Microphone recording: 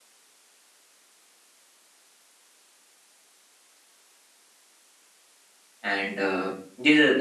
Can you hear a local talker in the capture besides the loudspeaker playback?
Yes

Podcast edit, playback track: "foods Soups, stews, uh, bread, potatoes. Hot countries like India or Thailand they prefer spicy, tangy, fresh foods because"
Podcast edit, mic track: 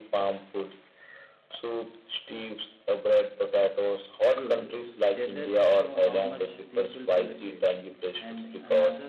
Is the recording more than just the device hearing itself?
Yes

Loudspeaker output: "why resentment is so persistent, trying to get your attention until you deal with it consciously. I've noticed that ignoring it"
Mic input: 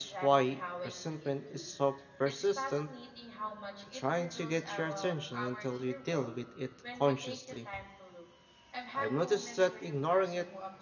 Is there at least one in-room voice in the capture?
Yes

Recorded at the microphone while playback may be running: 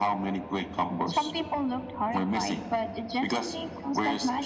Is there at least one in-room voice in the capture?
No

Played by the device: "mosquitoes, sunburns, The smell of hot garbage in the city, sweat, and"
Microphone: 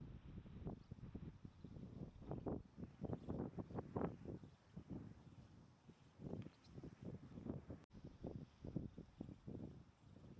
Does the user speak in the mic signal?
No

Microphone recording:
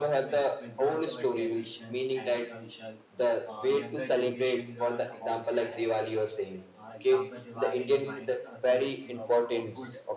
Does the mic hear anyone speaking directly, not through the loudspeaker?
Yes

